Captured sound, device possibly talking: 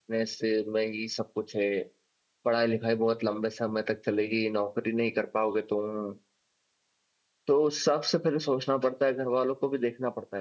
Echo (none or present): none